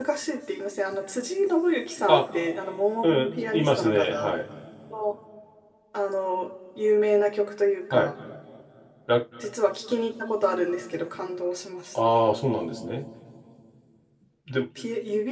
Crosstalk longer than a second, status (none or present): present